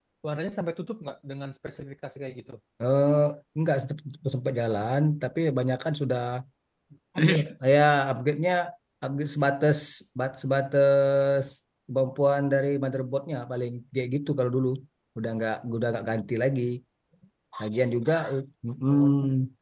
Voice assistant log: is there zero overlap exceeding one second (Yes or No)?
Yes